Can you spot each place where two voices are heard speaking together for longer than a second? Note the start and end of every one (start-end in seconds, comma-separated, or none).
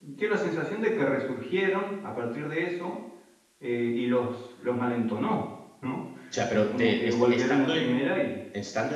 6.5-8.2